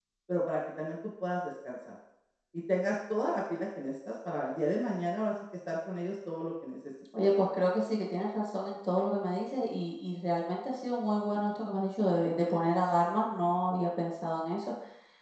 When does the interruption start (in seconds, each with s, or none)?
none